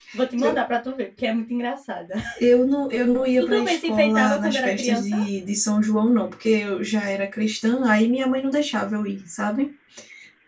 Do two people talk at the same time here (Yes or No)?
Yes